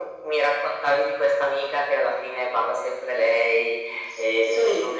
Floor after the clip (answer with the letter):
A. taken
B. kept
B